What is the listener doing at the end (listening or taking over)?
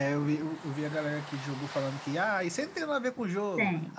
listening